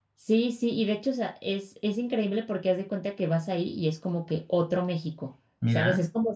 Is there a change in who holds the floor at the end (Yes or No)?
No